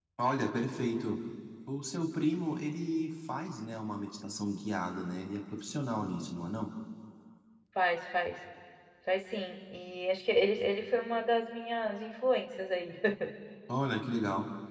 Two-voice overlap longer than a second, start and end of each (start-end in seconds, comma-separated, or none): none